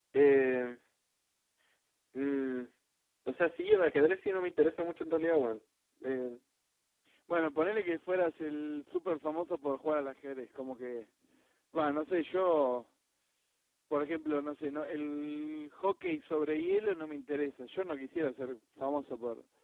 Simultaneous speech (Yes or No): No